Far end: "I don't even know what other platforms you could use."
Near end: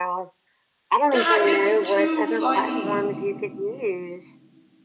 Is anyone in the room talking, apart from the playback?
Yes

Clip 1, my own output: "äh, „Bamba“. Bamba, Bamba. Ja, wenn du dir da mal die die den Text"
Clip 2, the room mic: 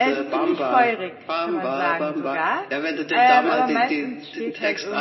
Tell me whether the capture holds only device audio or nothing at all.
No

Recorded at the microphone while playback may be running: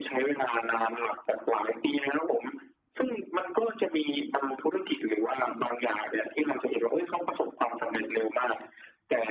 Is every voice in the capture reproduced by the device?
Yes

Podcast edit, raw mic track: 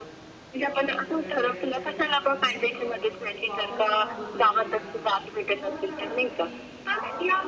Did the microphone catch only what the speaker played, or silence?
No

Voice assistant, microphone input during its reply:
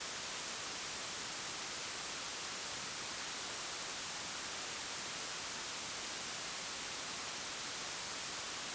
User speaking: No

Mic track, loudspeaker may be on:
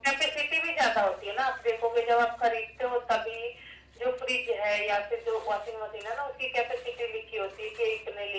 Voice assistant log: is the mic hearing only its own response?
Yes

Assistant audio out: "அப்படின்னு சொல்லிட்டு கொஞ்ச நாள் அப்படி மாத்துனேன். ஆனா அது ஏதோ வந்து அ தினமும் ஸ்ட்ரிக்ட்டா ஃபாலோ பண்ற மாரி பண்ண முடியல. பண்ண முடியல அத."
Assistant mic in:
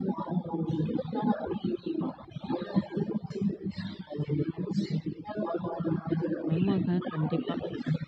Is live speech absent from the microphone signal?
No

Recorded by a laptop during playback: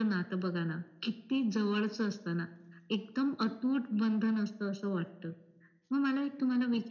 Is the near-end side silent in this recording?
Yes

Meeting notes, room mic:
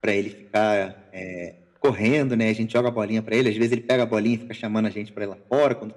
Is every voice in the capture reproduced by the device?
Yes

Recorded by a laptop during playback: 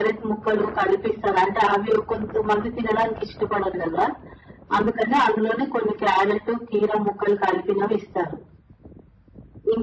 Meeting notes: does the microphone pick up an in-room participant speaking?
No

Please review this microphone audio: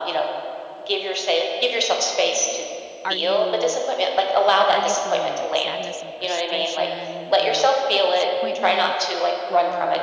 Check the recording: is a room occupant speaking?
Yes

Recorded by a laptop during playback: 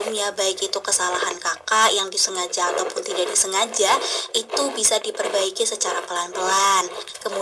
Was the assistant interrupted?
No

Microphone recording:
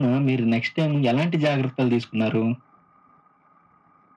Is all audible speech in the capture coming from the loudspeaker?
Yes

